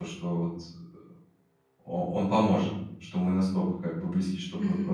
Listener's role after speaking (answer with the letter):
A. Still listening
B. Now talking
A